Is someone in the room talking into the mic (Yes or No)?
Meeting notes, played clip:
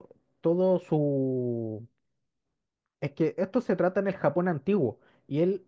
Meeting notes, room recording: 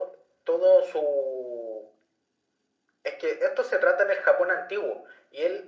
No